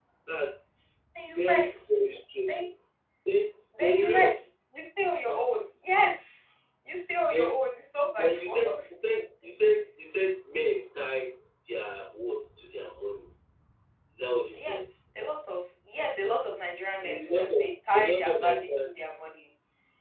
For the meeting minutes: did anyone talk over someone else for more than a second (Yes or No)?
Yes